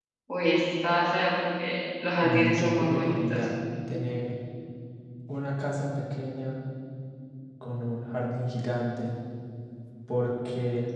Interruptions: present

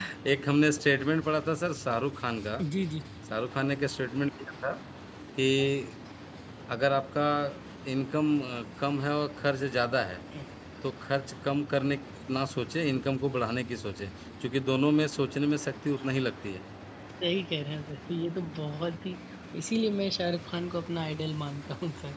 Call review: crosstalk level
none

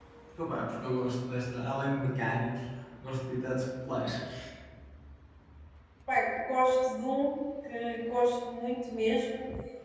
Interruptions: none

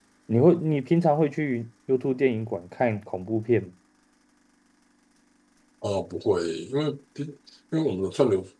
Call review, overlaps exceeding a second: none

